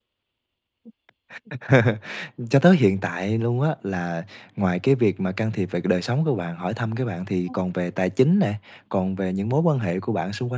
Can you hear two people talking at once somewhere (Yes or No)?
No